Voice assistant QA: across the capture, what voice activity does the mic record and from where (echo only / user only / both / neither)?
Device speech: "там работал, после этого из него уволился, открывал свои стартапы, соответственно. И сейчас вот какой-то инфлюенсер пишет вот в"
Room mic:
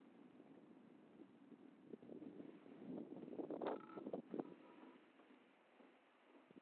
neither